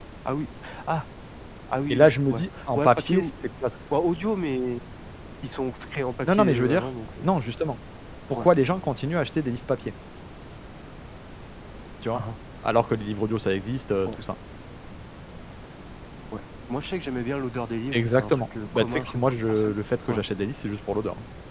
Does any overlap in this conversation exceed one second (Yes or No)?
Yes